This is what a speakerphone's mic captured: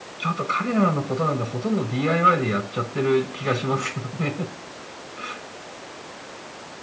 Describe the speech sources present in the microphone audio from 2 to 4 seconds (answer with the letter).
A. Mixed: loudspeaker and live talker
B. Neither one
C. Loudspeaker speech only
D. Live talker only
C